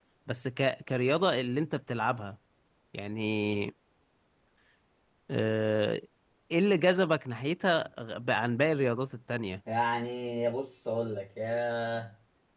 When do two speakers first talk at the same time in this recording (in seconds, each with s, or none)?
none